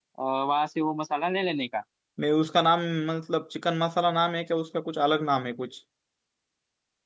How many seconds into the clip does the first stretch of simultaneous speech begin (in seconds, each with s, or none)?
none